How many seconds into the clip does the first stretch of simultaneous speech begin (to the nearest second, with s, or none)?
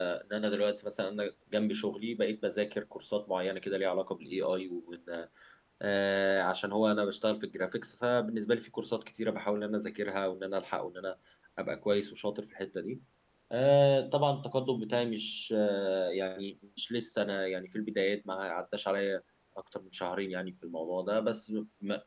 none